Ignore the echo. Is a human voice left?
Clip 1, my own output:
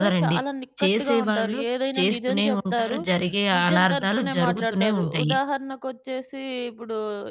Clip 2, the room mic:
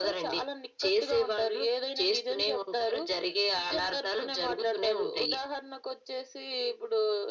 No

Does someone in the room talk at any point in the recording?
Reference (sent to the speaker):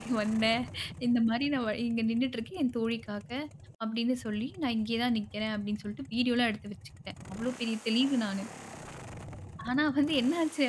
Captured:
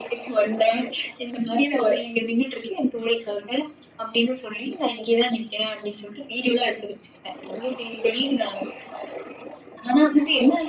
No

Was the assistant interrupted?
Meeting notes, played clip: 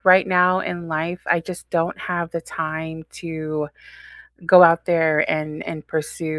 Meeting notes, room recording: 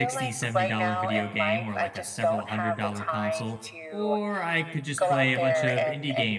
Yes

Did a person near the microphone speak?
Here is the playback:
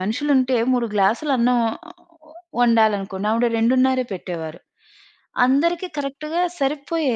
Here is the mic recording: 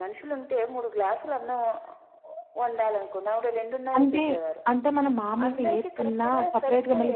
Yes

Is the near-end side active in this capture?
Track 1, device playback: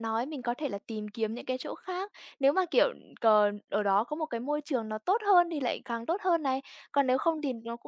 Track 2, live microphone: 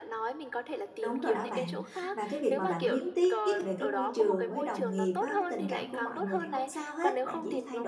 Yes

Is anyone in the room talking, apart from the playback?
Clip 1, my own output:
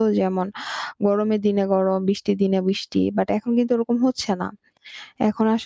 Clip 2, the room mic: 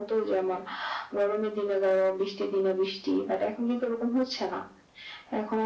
No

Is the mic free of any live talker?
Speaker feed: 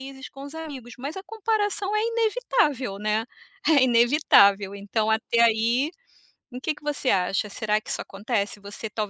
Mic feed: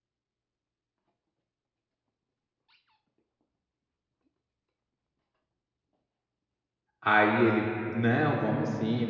No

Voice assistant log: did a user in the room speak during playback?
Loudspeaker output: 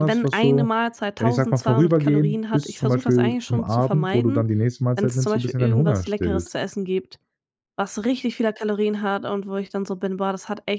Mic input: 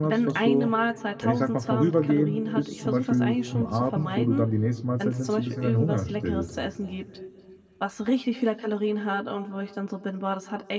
No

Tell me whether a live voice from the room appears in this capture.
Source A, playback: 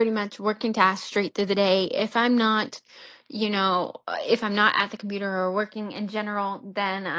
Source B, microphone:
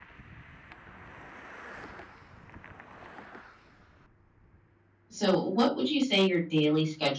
Yes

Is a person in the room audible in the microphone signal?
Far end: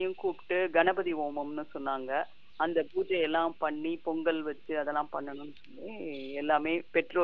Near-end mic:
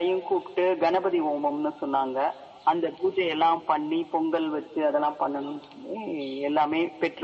No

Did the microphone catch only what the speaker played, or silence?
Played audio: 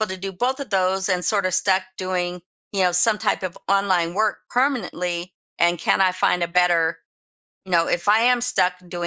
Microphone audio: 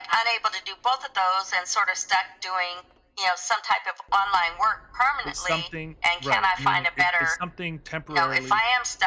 No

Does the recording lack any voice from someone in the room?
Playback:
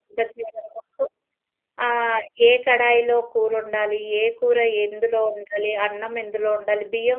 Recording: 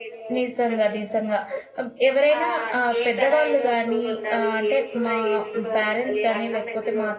No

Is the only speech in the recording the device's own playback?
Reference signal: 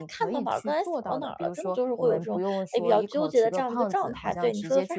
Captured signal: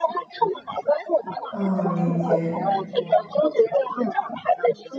No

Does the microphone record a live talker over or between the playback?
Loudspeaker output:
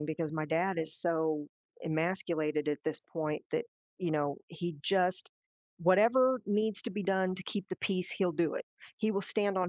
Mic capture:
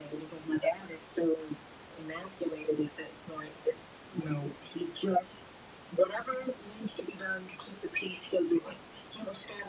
No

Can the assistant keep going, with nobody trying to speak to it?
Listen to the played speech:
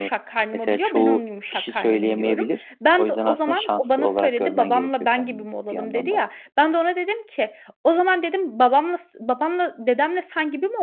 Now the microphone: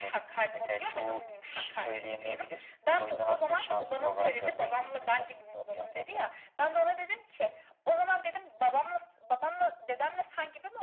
Yes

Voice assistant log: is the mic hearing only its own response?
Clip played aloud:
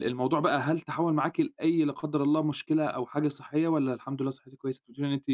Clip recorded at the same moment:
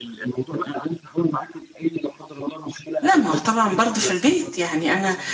No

